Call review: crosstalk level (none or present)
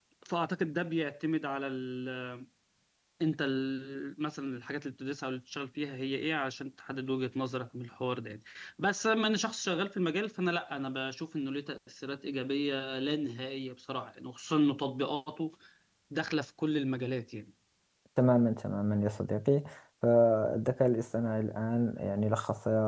none